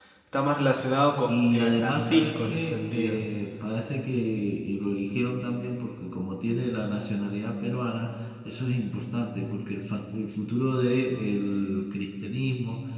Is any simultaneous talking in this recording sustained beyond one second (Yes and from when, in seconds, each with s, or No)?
Yes, from 1.3 s